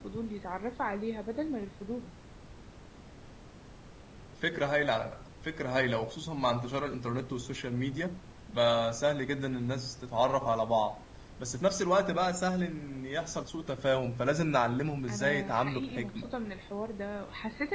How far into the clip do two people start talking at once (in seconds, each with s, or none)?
15.1 s